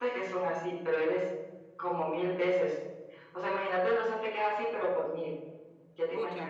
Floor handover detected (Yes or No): Yes